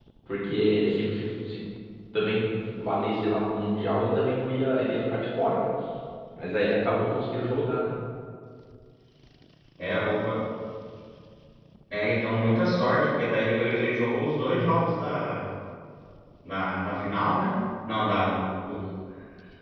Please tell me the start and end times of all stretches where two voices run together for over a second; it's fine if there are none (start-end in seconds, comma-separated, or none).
none